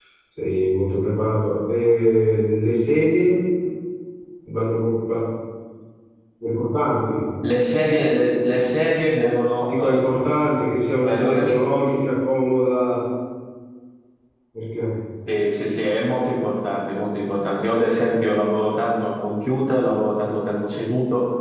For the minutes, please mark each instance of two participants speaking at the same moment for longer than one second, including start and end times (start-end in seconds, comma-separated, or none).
none